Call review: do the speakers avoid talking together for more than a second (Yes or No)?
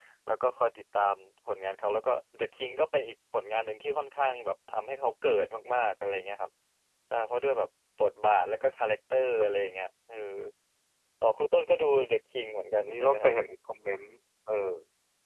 Yes